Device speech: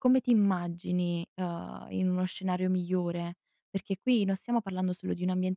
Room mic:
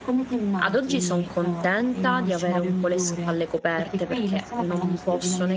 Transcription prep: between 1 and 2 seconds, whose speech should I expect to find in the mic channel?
both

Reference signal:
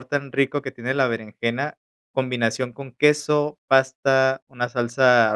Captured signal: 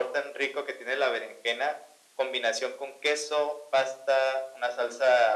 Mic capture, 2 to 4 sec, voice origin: echo only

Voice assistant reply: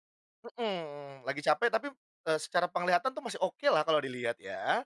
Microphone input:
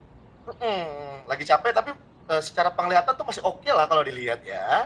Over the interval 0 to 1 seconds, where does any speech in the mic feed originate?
echo only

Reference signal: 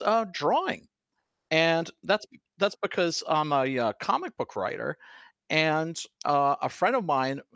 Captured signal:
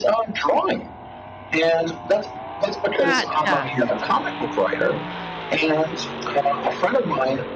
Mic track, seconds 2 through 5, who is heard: both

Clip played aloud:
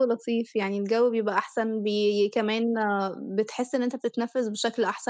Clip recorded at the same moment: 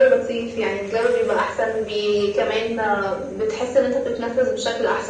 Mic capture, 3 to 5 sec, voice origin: echo only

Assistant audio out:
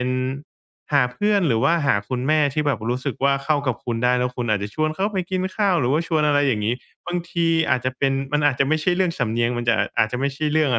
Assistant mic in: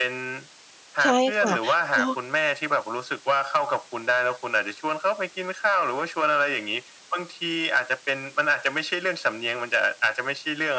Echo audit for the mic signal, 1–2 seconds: both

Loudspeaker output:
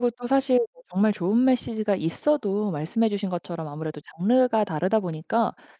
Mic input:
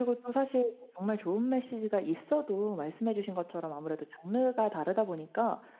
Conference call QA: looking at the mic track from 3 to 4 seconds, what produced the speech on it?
echo only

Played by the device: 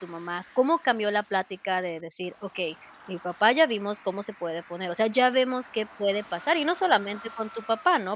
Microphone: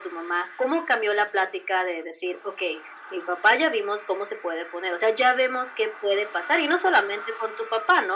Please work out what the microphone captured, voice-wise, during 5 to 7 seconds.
echo only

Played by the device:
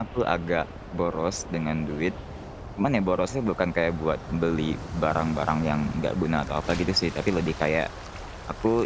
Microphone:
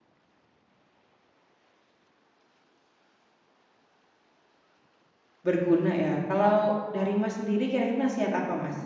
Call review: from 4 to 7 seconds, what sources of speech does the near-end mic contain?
user only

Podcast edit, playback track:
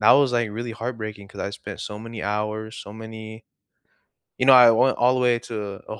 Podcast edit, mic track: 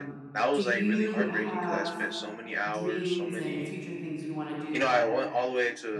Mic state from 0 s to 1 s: both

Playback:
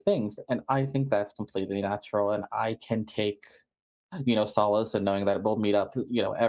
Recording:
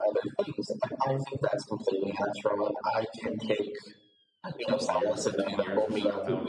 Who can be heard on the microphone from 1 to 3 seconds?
echo only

